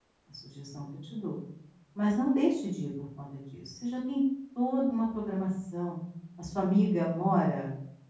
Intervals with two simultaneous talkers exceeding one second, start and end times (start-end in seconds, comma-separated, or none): none